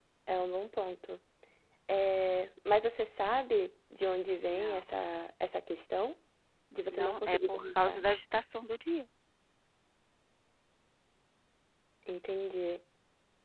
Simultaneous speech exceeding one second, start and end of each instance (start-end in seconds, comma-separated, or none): 6.9-8.1